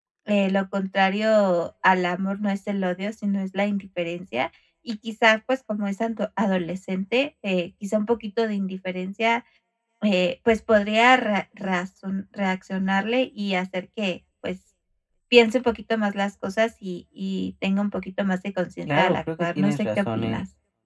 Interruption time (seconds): 19 s

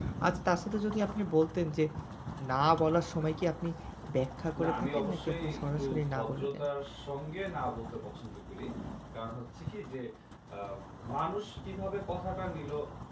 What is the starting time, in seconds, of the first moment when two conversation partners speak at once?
5 s

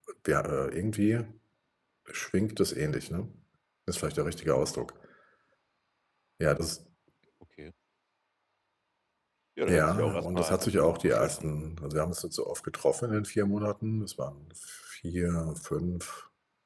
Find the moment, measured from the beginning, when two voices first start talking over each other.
10 s

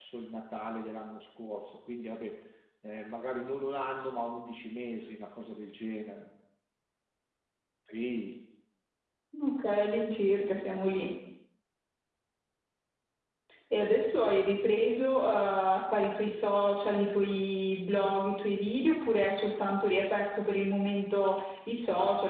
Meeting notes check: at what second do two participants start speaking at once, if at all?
none

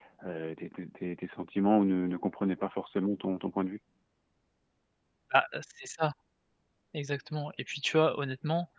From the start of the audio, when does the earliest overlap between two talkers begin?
none

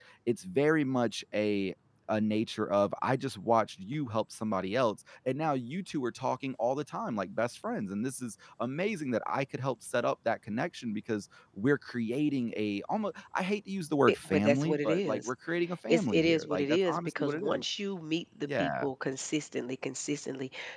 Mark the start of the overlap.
14 s

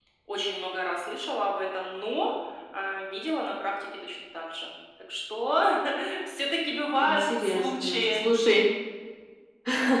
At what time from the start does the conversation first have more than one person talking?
7 s

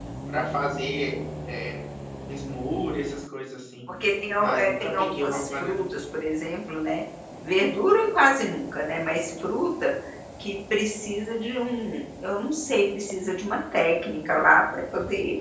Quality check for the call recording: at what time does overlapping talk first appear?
4 s

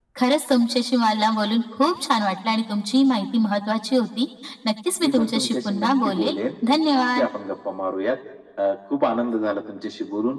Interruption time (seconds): 5 s

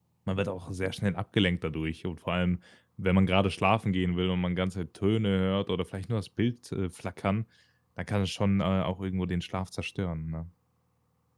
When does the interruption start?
none

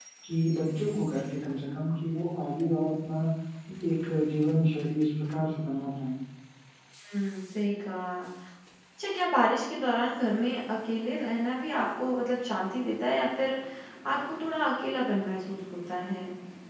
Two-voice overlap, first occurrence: none

